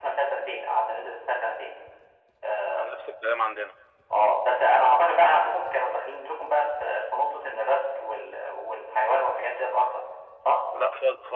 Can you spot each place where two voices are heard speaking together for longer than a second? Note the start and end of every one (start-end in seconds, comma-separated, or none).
none